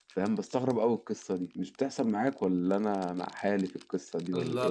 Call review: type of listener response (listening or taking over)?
taking over